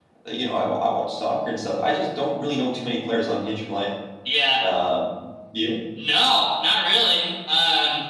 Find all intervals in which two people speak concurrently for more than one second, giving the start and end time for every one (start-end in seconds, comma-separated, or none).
none